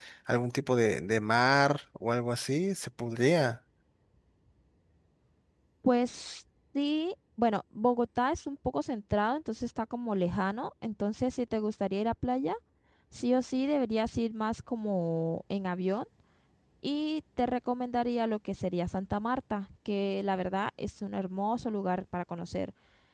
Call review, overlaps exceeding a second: none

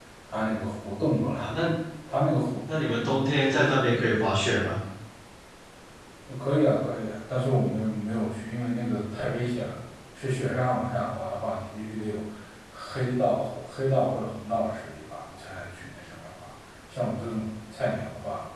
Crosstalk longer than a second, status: none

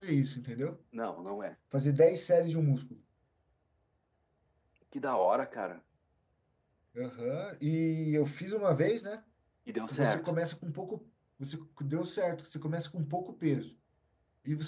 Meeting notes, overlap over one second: none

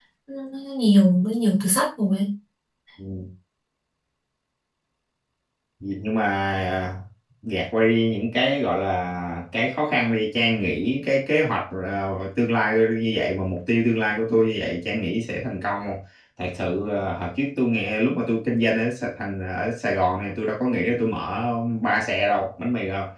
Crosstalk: none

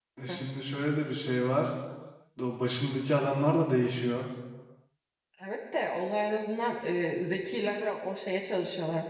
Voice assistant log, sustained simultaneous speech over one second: none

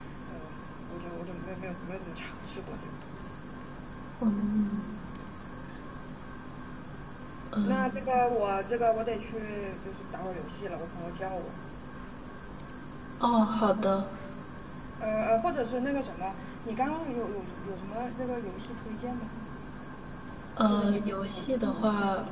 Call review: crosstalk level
present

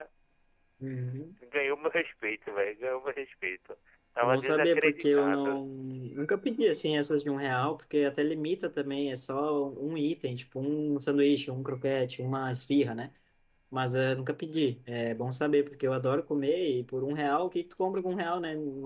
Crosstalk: present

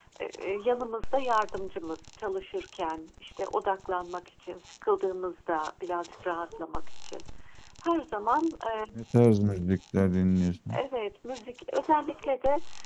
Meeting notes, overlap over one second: none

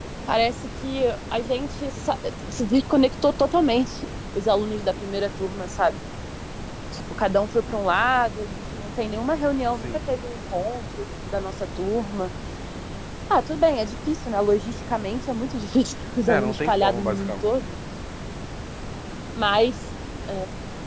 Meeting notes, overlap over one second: present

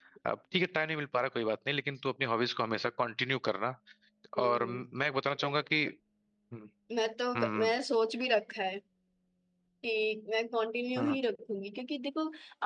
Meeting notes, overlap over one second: none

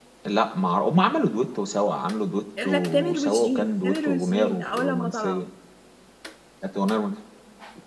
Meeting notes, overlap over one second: present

